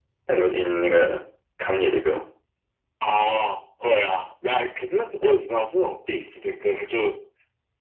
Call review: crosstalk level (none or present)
none